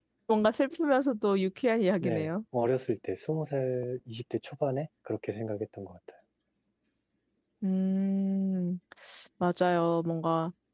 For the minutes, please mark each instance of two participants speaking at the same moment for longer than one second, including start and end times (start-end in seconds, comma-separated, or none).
none